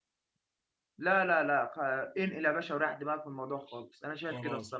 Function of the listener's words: taking over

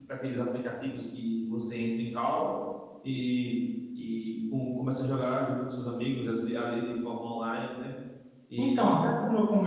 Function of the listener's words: taking over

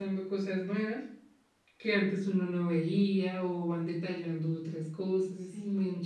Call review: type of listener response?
taking over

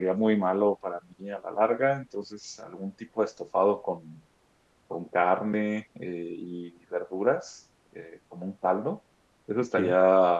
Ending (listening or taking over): listening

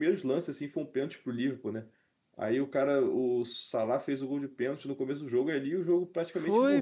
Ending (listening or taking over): taking over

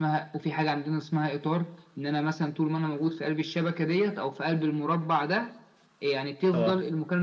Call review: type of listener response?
listening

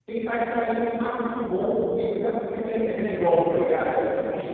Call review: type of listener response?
taking over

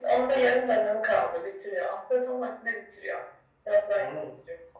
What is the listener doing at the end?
taking over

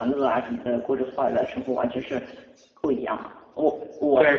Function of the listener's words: taking over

